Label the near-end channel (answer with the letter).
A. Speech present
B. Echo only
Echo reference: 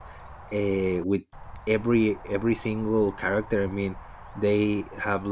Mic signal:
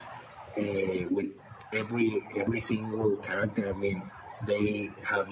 B